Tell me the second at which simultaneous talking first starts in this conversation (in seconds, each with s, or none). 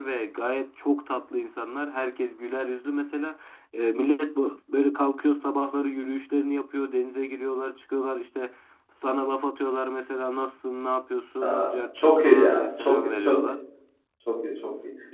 11.4 s